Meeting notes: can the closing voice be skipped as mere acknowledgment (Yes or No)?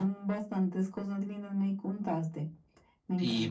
No